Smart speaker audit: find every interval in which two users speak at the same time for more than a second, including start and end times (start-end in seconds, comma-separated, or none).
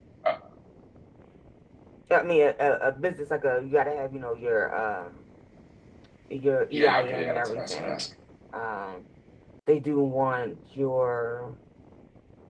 6.7-8.1